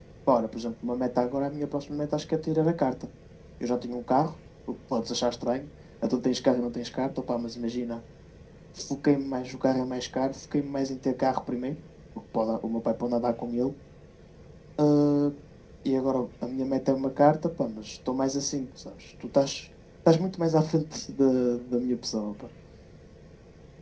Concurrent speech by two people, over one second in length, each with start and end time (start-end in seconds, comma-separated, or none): none